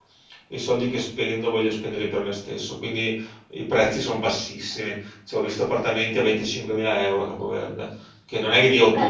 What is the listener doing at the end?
listening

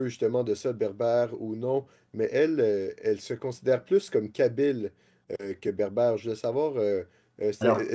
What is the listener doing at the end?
listening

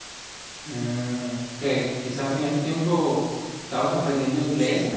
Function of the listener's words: taking over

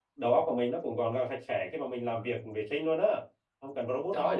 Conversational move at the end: taking over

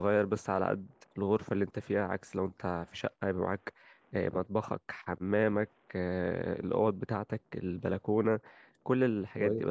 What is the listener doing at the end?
taking over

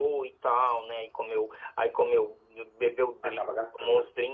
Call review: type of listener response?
listening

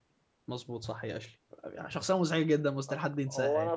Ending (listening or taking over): taking over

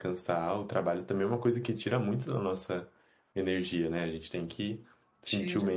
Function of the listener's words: listening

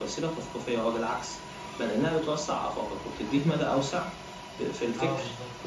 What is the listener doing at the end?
listening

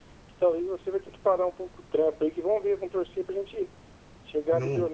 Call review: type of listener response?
listening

